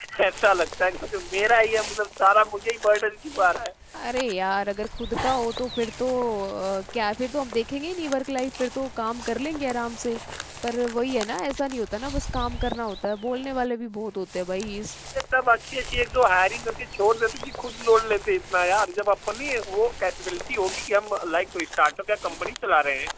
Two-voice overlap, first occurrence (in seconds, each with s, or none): none